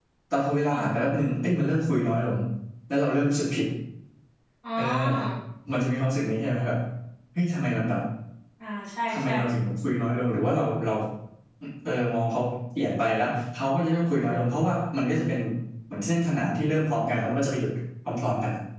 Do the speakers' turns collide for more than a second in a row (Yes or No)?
No